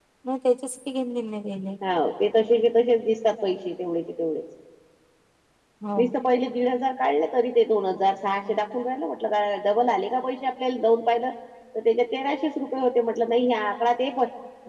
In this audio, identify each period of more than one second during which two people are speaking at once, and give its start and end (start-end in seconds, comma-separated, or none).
none